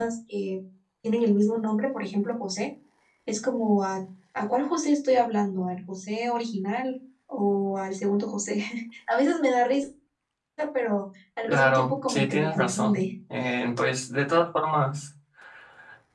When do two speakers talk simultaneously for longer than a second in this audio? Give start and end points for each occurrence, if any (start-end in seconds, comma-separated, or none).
11.5-13.0